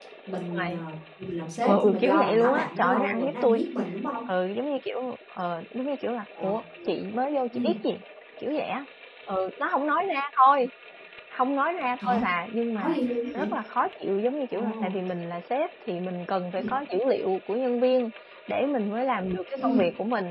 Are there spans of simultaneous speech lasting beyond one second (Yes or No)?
Yes